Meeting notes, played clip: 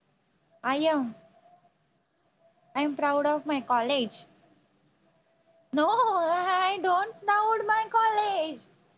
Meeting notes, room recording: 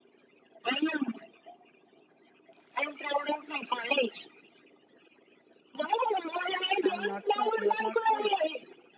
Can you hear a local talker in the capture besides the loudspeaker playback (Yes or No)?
Yes